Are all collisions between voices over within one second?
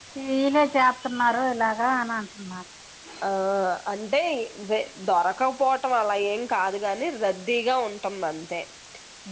Yes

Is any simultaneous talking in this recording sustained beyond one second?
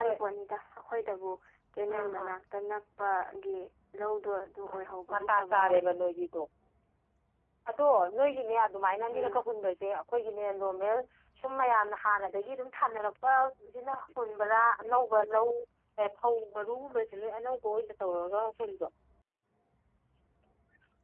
Yes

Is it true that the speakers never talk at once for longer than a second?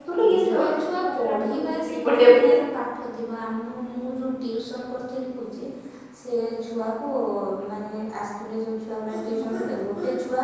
No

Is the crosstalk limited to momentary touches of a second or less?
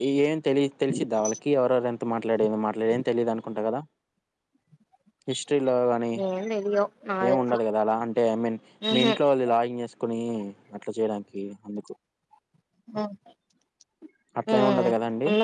Yes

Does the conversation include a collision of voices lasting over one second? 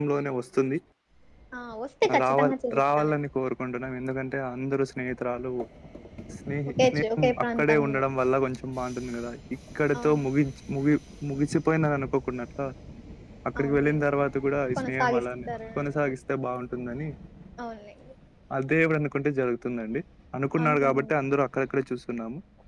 Yes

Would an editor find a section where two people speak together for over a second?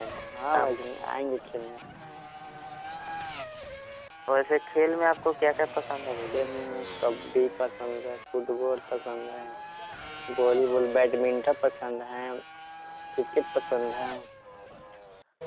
No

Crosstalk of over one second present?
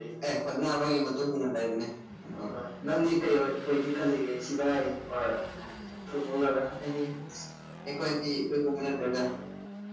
No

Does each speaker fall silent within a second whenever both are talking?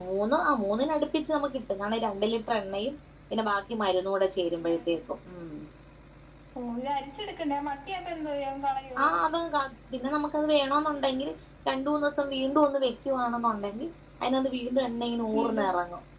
Yes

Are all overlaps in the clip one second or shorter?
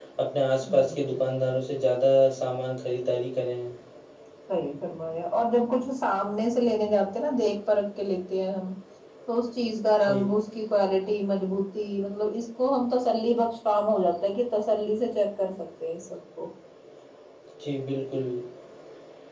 Yes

